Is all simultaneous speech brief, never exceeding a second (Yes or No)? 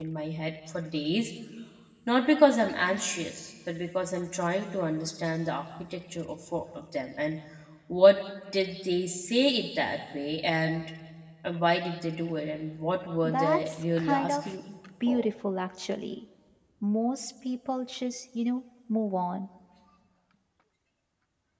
No